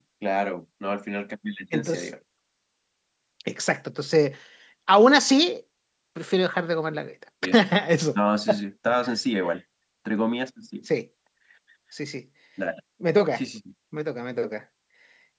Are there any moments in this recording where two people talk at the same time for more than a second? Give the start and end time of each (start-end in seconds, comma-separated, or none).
none